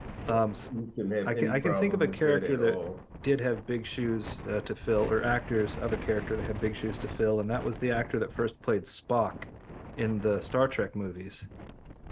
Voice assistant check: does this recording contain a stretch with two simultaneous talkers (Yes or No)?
Yes